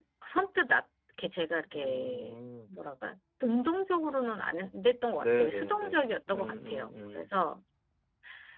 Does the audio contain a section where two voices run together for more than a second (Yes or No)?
Yes